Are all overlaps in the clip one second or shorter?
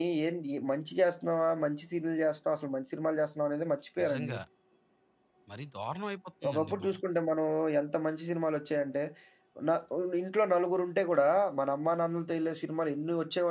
Yes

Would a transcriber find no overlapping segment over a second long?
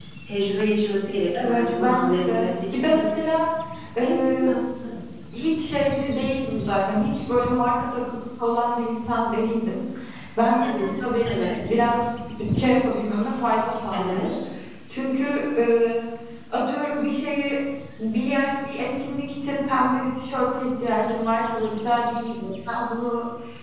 No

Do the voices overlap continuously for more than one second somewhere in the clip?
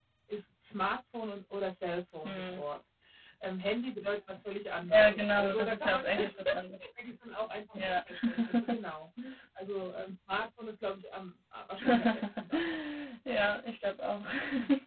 Yes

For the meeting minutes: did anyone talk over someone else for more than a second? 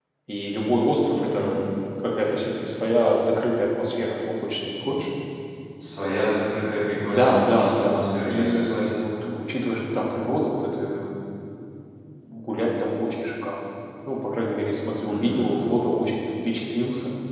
Yes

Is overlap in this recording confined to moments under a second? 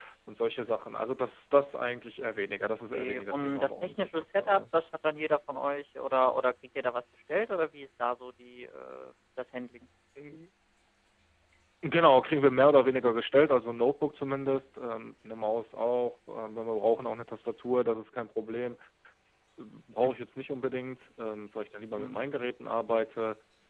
No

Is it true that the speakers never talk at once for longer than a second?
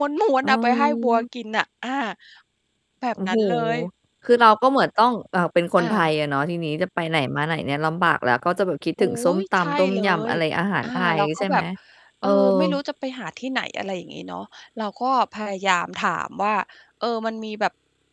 No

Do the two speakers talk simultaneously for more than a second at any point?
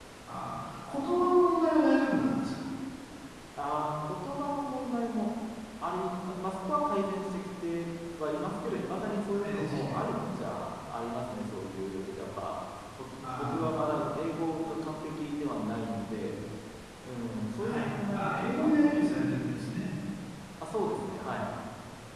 Yes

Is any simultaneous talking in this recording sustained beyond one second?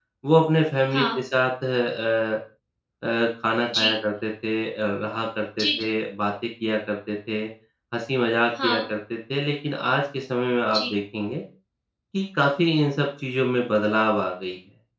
No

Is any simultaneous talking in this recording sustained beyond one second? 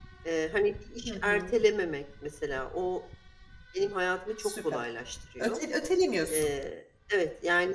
No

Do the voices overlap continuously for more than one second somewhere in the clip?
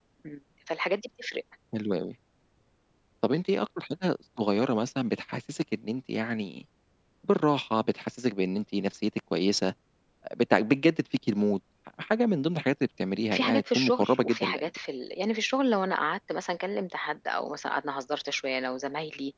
Yes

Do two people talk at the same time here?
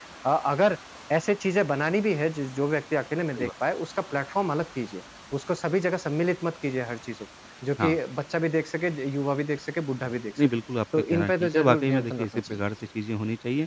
Yes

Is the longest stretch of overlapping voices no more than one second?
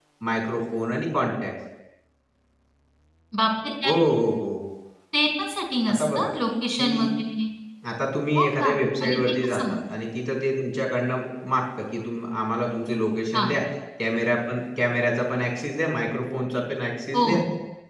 No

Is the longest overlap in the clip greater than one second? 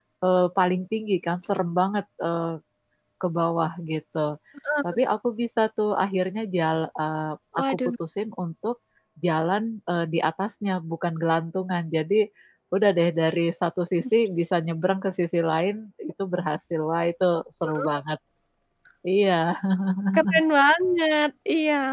No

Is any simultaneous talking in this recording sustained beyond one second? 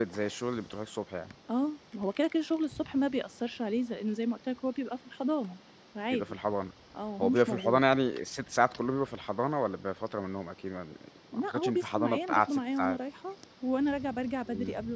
Yes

